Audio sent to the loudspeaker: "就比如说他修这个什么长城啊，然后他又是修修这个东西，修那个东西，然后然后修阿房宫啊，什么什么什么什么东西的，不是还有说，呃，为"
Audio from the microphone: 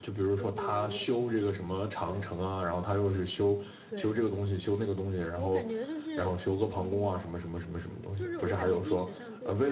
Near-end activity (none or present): present